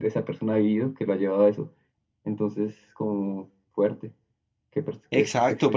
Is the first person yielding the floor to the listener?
Yes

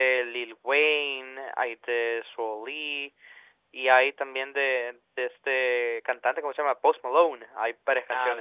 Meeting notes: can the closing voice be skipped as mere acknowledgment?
No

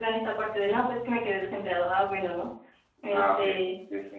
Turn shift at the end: Yes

